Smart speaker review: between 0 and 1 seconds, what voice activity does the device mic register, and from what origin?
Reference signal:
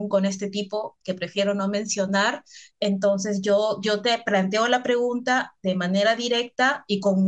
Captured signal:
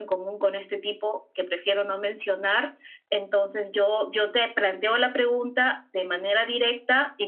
echo only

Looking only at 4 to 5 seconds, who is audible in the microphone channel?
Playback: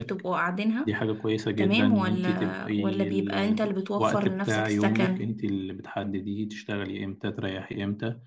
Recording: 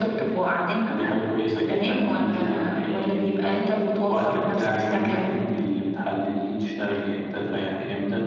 echo only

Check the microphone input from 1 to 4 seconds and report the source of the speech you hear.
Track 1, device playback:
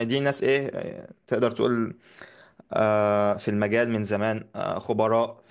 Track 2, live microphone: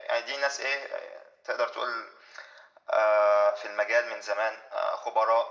echo only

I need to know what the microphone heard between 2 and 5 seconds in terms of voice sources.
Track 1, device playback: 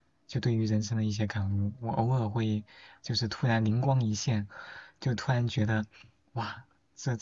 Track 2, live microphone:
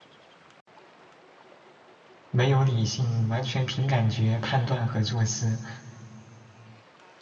user only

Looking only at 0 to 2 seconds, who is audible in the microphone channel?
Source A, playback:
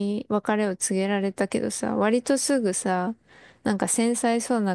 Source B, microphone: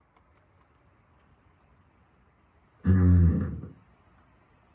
neither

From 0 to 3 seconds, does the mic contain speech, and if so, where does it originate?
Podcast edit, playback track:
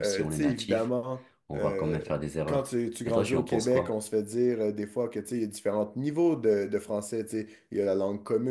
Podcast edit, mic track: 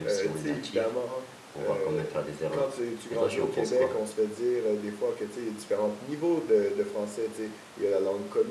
echo only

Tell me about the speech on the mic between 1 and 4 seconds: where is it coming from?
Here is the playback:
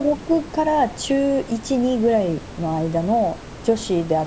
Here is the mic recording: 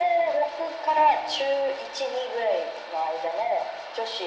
echo only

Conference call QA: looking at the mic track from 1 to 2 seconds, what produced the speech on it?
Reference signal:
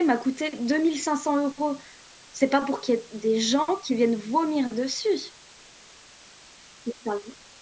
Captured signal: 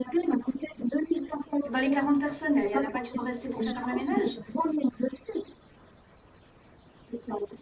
both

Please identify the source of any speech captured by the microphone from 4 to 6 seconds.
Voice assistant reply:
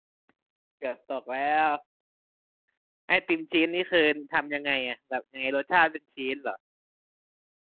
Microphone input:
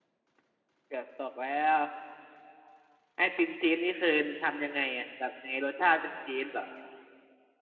echo only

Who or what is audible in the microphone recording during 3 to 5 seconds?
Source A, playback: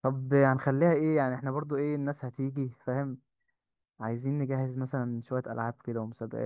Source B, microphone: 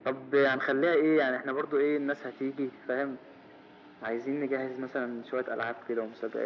echo only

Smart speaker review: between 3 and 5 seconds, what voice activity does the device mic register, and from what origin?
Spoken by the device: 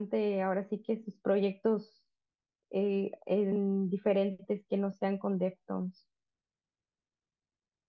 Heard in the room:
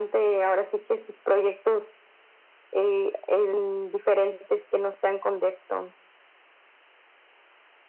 echo only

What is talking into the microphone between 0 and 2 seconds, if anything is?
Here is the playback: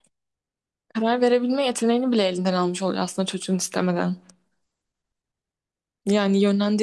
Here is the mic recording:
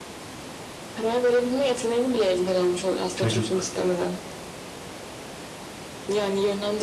echo only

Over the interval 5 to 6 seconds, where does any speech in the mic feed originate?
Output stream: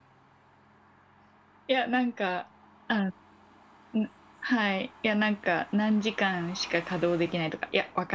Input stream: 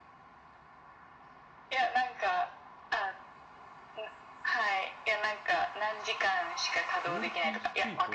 echo only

